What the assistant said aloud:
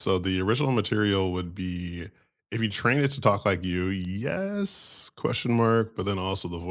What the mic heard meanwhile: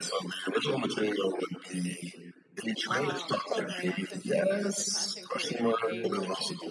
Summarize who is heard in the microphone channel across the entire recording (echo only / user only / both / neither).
both